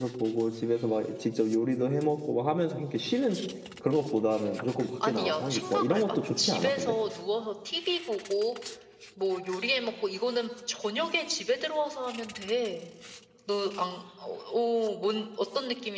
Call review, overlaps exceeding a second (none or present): present